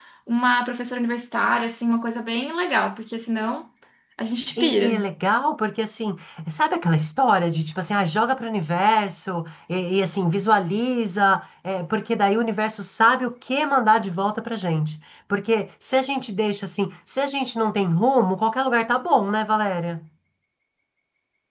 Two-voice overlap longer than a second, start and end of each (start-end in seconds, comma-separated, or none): none